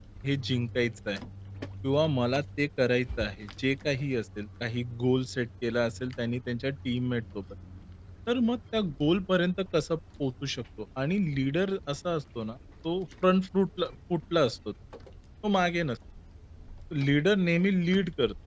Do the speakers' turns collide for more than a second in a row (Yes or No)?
No